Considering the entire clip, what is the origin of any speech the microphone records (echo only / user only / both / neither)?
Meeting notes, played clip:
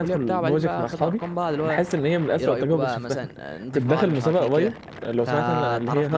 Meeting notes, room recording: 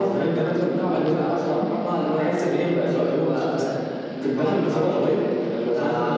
echo only